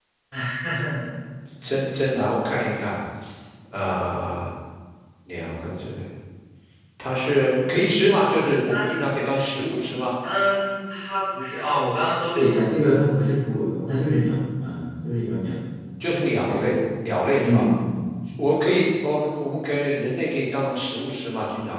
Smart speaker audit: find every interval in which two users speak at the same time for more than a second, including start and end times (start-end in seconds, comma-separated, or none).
none